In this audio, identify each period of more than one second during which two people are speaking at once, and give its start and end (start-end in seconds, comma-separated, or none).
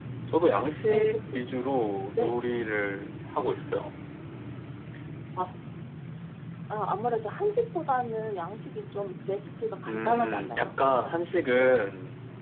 9.9-11.2